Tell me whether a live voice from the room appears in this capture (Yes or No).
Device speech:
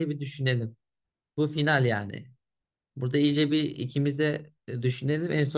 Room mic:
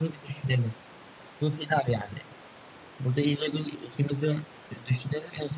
No